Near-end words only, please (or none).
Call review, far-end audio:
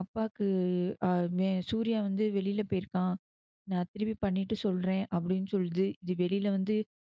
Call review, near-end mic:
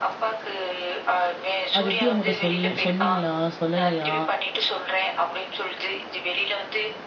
அது எப்படி அவங்கட்ட சொல்ல சொன்னீங்களா? சொல்லலையா?